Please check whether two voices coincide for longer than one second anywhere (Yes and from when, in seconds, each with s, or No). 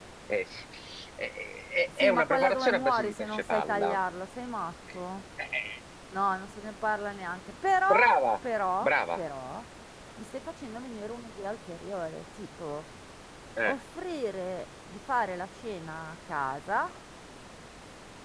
Yes, from 2.0 s